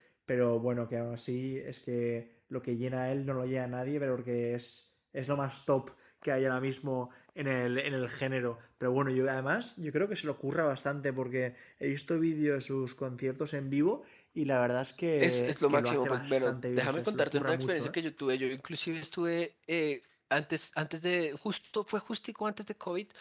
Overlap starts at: 15.2 s

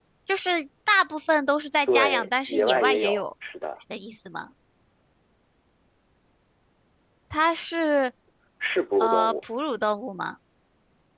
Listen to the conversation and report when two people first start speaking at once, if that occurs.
1.9 s

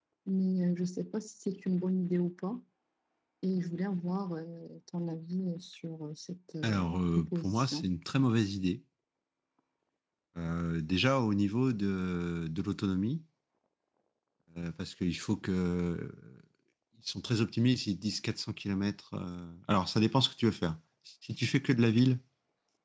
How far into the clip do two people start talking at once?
6.6 s

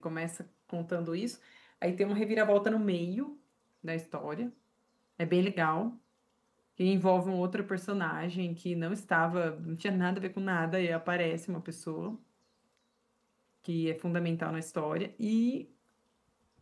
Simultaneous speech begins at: none

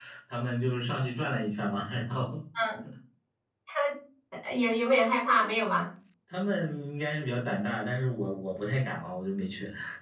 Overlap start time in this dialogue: none

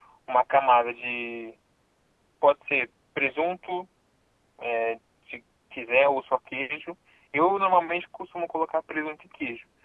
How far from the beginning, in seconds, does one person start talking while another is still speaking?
none

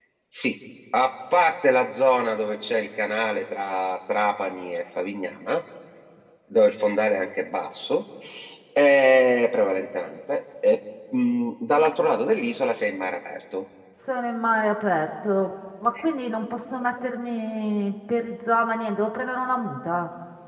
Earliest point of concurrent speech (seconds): none

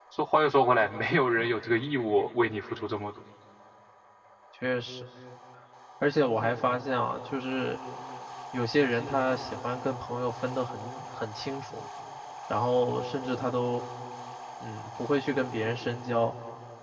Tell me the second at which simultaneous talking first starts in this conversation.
none

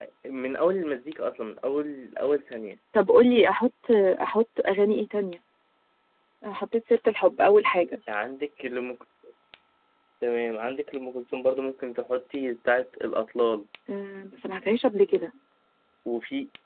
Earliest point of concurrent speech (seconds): none

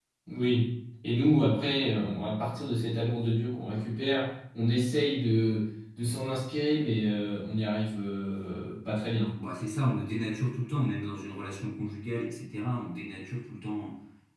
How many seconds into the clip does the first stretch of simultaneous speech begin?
none

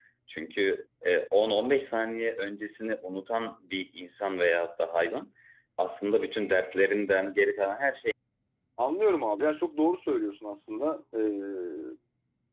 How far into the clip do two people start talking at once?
none

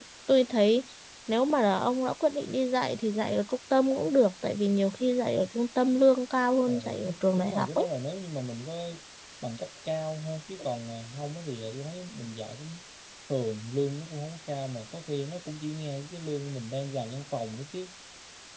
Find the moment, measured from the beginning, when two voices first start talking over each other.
6.7 s

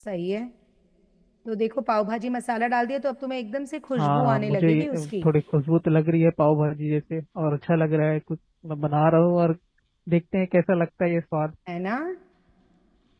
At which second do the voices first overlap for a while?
4.0 s

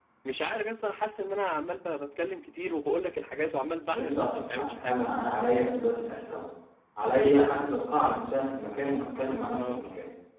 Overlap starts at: 3.9 s

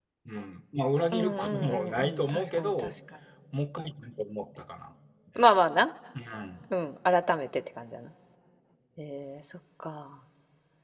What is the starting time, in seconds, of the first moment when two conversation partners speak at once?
1.1 s

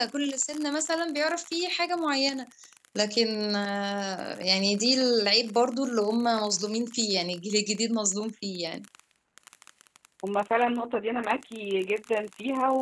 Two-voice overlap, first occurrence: none

